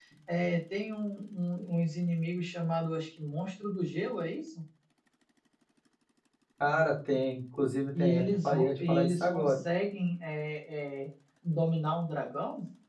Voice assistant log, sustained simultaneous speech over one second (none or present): present